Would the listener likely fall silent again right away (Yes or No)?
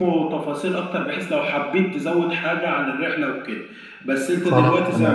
Yes